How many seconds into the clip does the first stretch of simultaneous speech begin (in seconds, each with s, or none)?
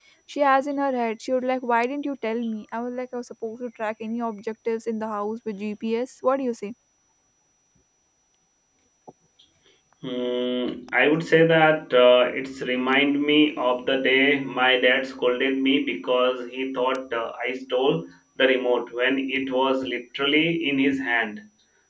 none